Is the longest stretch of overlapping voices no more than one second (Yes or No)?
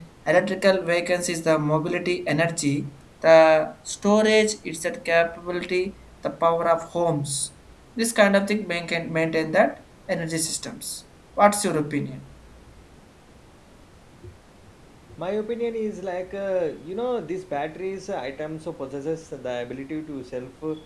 Yes